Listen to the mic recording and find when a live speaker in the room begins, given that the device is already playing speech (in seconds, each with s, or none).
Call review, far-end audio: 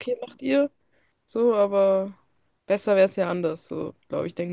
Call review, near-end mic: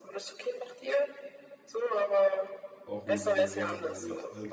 2.8 s